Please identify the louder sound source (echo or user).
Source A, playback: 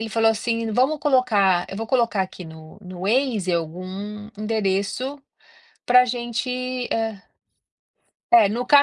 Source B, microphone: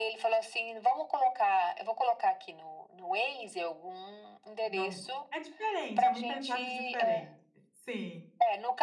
echo